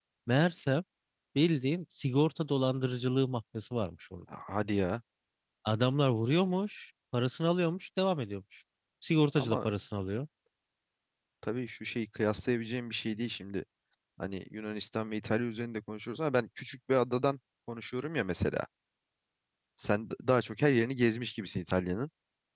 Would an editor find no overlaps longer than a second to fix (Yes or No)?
Yes